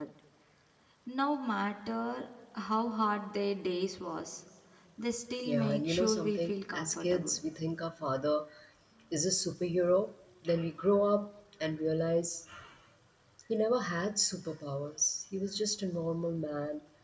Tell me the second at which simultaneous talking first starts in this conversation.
5 s

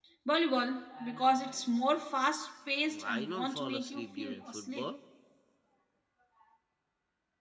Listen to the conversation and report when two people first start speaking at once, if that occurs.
3 s

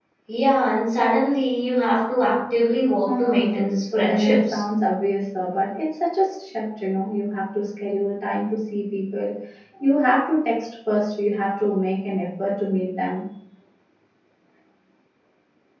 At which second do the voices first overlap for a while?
3 s

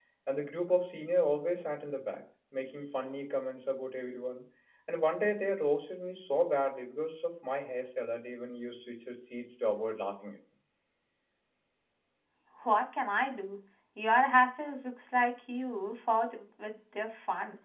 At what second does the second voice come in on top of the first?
none

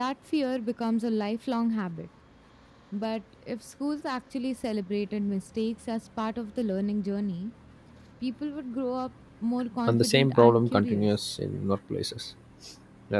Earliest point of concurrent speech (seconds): 10 s

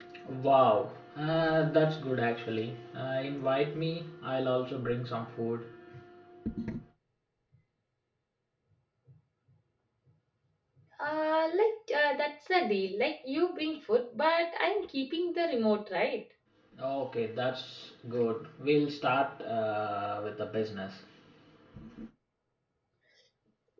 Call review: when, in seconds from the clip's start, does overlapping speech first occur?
none

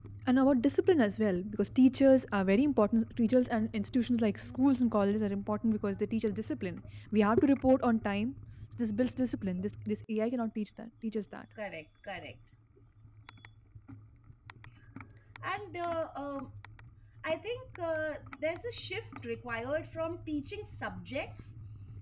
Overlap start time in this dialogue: none

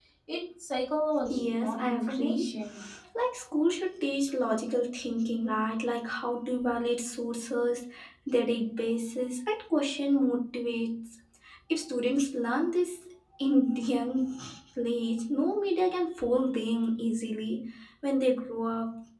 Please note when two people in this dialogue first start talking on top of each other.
1 s

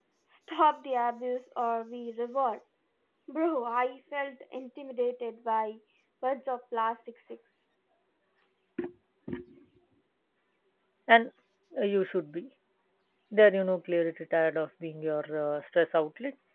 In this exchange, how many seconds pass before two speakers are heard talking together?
none

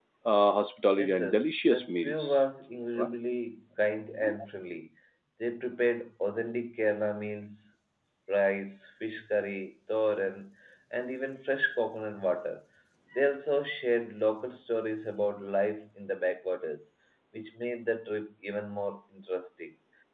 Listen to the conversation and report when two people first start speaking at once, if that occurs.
1 s

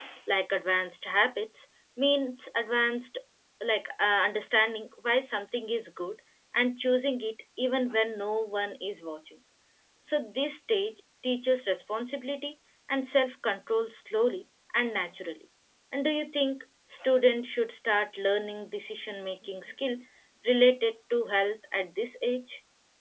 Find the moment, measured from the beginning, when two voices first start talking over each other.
none

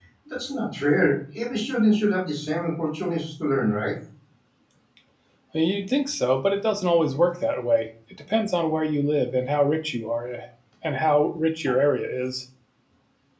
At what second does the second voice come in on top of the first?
none

